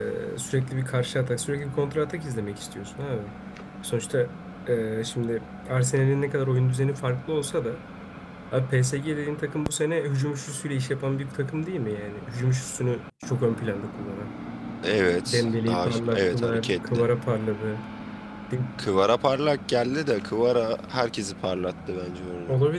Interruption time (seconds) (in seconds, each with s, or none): 15.3 s